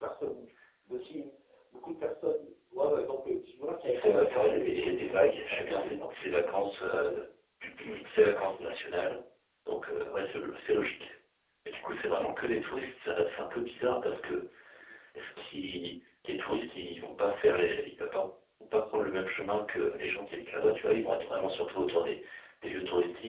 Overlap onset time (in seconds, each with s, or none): 3.8 s